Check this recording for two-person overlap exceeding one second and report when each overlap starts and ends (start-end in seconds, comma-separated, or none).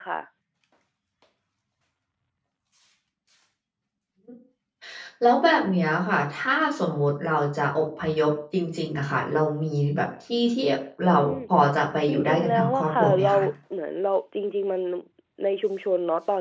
12.1-13.3